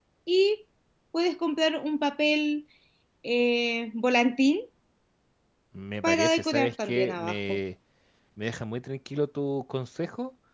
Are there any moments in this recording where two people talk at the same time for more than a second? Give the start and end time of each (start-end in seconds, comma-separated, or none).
6.0-7.6